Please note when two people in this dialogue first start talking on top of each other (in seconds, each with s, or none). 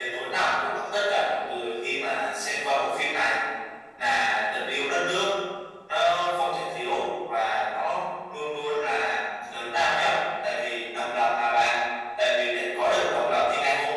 none